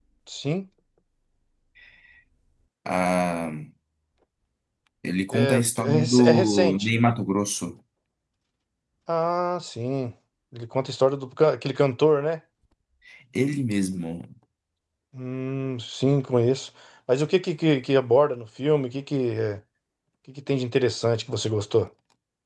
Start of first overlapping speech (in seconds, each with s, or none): 5.3 s